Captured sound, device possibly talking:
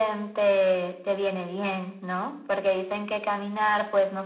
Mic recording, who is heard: echo only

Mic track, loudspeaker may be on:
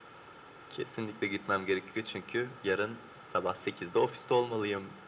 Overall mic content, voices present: echo only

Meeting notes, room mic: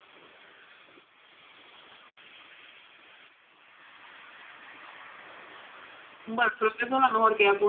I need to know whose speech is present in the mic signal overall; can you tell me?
user only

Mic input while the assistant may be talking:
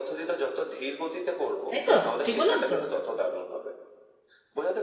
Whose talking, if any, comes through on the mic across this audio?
both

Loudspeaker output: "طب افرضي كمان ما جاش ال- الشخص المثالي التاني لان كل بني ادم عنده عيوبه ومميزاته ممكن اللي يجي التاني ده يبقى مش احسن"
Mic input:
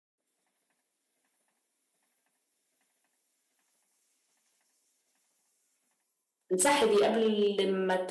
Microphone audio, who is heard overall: user only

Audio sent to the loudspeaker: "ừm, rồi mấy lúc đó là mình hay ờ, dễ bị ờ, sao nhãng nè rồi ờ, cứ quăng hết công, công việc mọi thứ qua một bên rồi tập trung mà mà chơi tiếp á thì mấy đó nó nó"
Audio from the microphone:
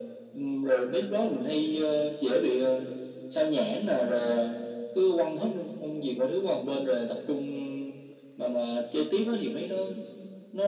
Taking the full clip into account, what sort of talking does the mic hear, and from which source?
echo only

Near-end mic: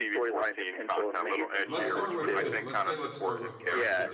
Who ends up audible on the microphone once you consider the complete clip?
both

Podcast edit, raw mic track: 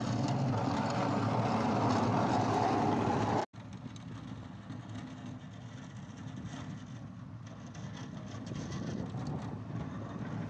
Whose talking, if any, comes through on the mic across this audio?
neither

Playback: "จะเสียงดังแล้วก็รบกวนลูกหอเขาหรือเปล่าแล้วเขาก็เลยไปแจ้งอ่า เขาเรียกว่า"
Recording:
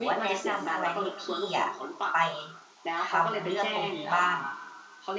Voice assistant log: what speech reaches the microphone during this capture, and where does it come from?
both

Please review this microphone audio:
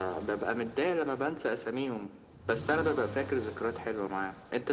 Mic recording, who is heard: echo only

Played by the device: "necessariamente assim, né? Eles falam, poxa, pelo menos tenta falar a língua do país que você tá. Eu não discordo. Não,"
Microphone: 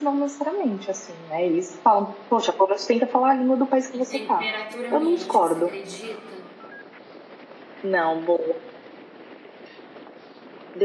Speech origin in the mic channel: both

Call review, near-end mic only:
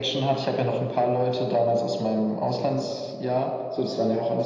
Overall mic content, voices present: echo only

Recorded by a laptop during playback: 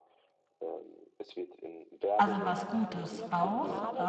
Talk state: both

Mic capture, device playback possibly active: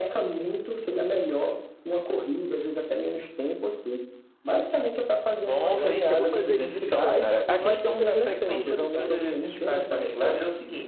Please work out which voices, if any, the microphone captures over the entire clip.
both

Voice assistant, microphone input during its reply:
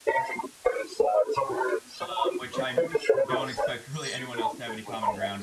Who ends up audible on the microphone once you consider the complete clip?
both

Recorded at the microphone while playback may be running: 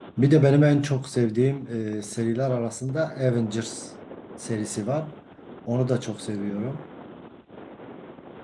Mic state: user only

